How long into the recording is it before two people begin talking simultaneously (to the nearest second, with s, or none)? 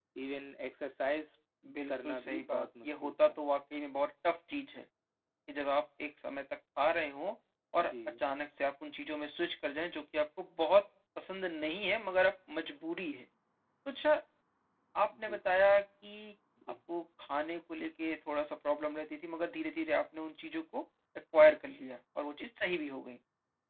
2 s